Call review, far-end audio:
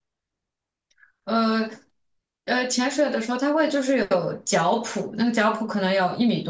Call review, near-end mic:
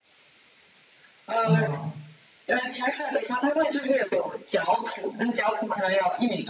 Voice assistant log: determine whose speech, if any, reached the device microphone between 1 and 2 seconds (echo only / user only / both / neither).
both